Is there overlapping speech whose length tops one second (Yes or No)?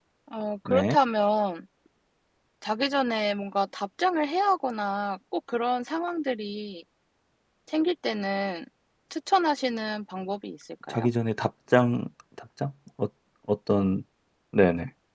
No